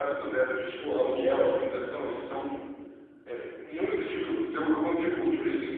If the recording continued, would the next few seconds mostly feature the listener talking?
No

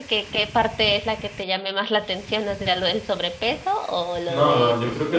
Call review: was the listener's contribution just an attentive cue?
No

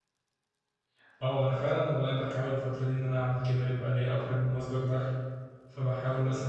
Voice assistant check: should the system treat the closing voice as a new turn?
No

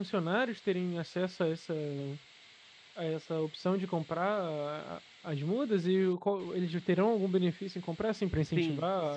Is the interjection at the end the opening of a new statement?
Yes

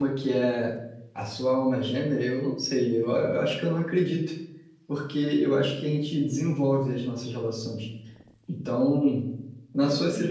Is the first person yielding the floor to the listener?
No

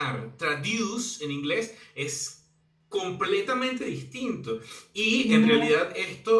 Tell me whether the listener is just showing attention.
Yes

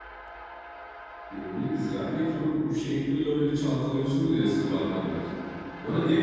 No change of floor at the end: Yes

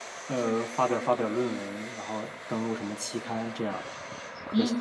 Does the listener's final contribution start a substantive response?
Yes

